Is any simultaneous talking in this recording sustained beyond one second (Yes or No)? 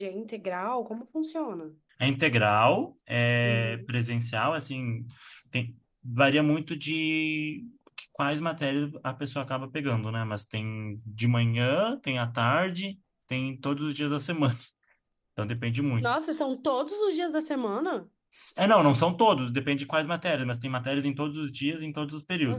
No